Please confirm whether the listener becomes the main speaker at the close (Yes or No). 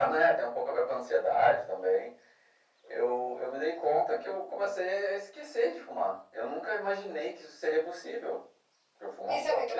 Yes